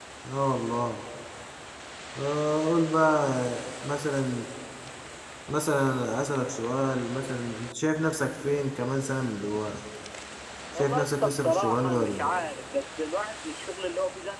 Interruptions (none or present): present